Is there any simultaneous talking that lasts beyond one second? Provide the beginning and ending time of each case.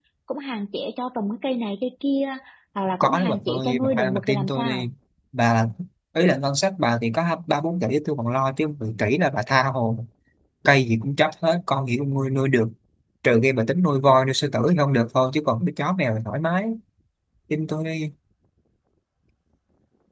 2.9-4.9

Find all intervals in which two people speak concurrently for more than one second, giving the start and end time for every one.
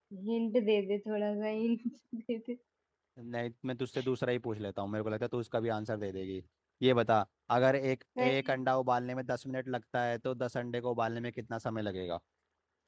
none

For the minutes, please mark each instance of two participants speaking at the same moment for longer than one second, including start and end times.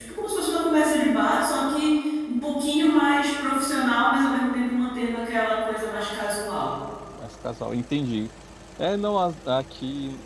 none

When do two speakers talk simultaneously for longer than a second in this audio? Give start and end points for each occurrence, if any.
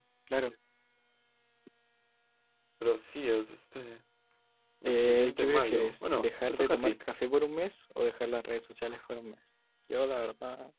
4.8-6.9

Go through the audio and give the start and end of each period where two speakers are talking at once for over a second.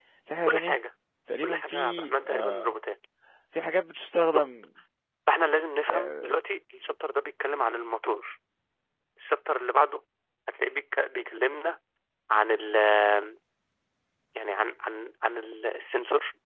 1.4-2.6

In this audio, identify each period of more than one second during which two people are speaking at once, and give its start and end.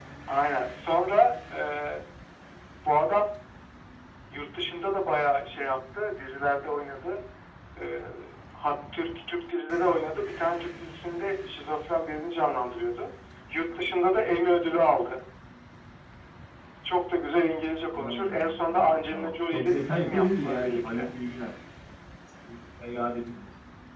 17.9-21.1

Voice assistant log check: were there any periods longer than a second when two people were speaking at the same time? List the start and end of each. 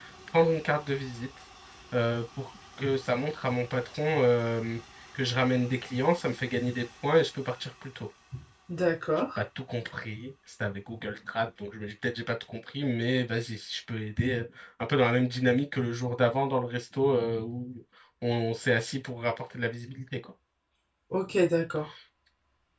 none

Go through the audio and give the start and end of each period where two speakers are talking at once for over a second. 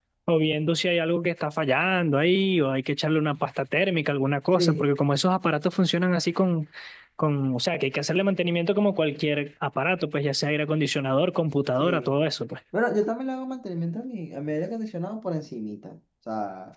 none

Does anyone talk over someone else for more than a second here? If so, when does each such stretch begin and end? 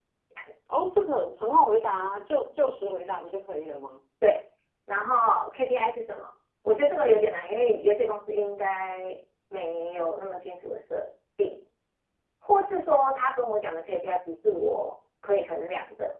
none

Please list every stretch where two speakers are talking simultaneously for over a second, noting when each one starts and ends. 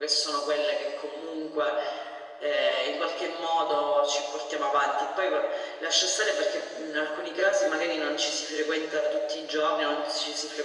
none

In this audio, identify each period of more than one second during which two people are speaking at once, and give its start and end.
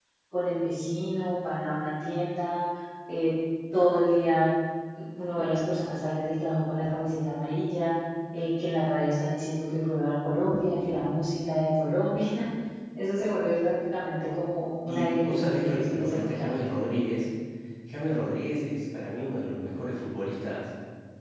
14.9-16.5

